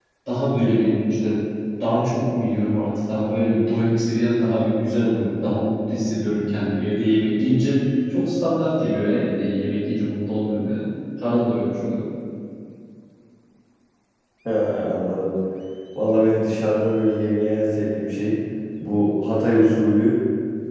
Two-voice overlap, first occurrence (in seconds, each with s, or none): none